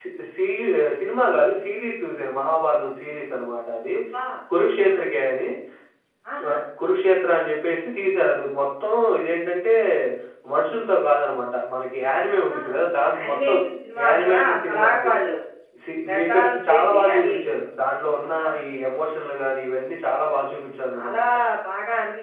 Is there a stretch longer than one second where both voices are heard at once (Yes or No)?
Yes